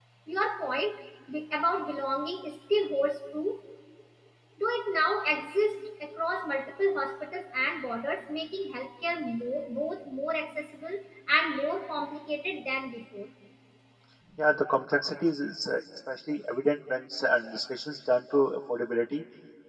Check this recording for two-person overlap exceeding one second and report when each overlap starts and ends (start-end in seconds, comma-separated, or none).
none